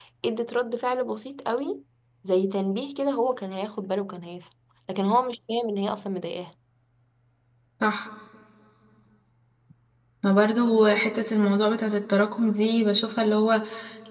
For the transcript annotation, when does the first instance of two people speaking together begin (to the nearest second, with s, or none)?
none